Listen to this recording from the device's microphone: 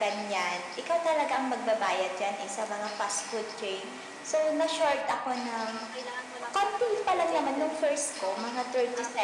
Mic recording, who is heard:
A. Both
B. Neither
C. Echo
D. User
A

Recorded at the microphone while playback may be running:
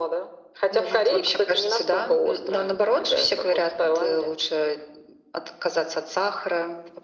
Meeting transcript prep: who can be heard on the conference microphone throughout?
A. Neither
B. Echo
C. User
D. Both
B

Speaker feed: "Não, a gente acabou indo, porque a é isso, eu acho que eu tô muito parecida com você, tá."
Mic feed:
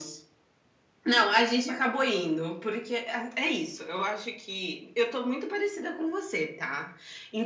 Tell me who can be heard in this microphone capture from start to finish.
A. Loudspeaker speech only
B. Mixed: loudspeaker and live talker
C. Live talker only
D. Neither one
A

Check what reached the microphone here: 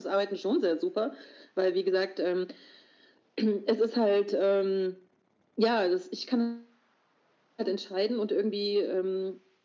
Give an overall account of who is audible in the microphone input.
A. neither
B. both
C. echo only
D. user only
C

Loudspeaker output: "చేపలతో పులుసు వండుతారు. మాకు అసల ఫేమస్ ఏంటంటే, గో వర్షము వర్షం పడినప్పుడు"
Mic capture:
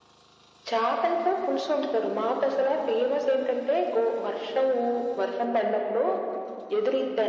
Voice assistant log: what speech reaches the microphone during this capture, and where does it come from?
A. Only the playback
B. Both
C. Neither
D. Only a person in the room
A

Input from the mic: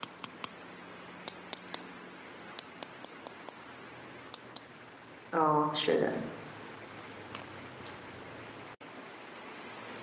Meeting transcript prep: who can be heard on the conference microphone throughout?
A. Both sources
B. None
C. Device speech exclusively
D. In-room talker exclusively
D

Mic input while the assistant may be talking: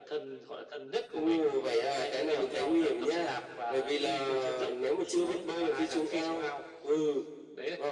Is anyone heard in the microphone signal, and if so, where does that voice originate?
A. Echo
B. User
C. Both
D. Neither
A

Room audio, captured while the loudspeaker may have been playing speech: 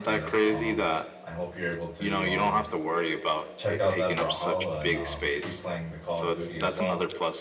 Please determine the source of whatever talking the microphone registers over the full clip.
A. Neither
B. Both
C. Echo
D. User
B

